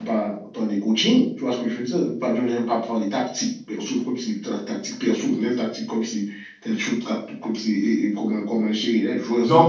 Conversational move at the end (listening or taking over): taking over